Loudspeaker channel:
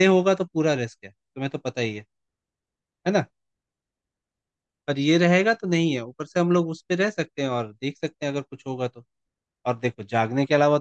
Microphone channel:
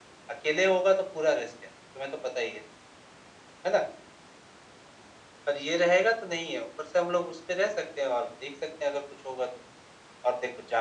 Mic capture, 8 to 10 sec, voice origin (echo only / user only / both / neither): echo only